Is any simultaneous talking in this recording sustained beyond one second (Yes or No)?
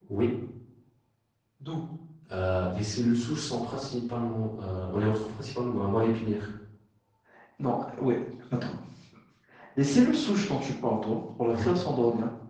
No